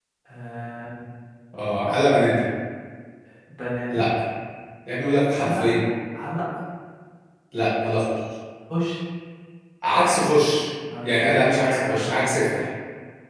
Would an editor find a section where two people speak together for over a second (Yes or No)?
Yes